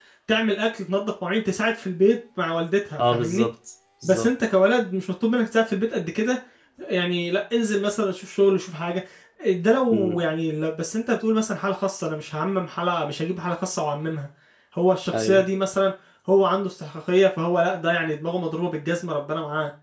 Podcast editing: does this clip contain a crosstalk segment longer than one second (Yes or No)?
No